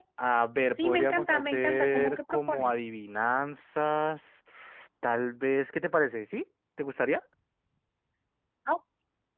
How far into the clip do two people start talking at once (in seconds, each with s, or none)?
0.8 s